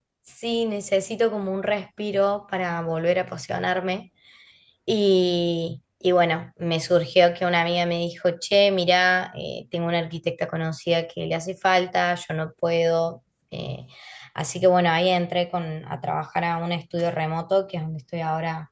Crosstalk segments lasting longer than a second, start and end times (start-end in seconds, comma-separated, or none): none